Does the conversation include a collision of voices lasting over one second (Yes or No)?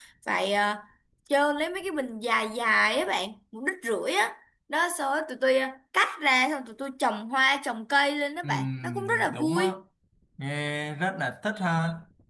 Yes